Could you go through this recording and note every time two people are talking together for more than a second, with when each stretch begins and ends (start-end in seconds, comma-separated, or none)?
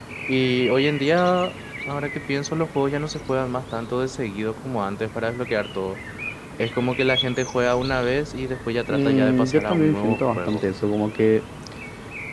8.9-10.6